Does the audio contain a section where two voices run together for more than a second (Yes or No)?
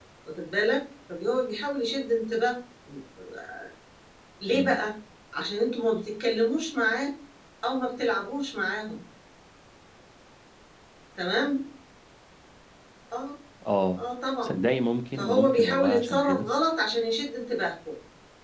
Yes